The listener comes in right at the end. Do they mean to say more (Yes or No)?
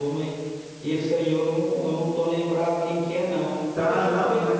Yes